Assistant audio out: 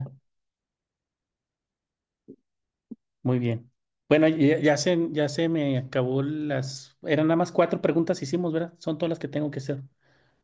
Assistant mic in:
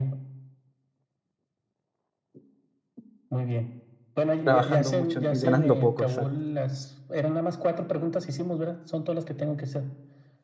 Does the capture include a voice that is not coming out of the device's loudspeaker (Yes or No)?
Yes